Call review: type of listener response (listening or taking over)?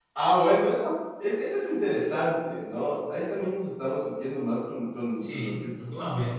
taking over